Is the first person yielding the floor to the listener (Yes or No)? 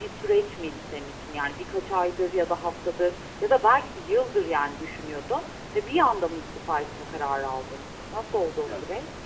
Yes